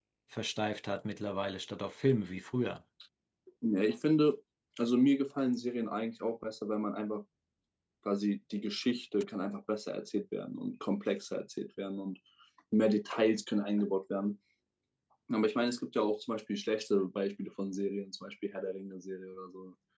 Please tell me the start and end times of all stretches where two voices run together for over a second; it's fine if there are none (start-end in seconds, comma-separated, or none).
none